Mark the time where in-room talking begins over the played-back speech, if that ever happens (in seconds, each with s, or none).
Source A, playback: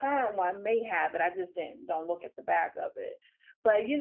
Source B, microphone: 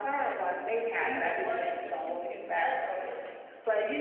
1.0 s